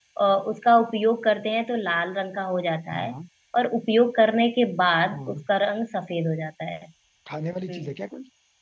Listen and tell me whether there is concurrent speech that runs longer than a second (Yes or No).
No